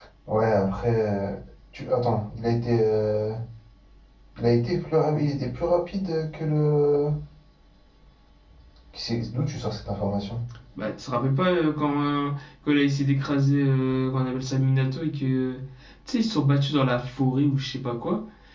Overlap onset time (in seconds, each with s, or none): none